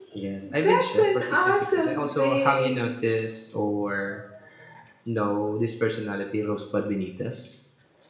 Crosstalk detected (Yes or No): Yes